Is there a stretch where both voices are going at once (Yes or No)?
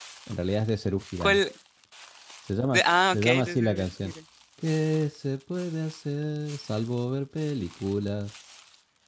Yes